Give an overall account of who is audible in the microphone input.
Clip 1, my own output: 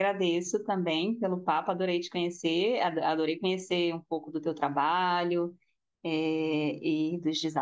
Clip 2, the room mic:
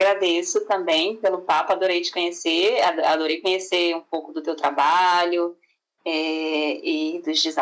echo only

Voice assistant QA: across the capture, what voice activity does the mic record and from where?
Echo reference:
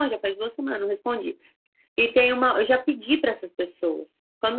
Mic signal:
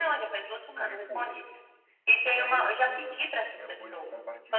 both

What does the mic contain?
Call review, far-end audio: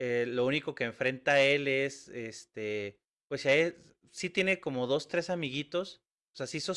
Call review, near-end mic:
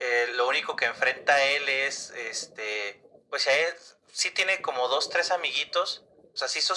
echo only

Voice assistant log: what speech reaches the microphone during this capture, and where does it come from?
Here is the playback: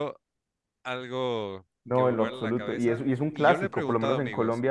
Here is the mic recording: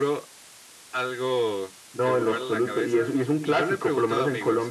echo only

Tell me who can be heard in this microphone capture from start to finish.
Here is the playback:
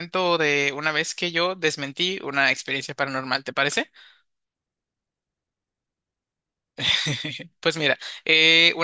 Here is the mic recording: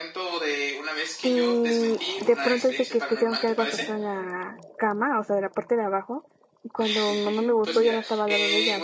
both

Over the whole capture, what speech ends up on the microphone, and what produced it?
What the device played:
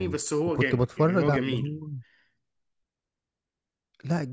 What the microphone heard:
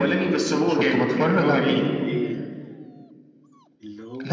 both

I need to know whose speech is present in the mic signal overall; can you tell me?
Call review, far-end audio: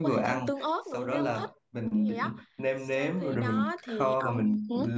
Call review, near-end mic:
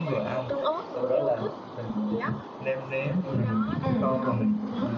both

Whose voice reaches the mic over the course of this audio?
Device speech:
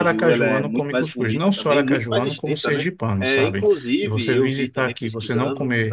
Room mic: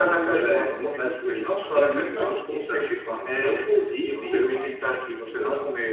both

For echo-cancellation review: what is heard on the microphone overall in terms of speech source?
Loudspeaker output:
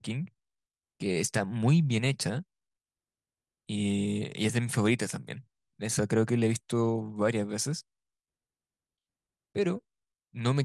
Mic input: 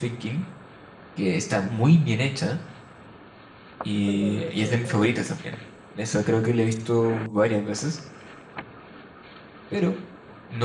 both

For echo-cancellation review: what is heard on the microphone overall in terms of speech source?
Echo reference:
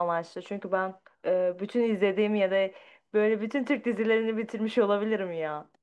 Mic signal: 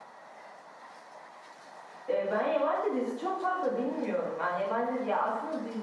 user only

